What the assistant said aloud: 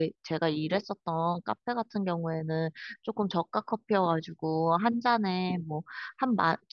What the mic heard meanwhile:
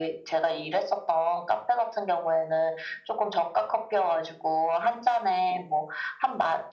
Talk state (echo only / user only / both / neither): echo only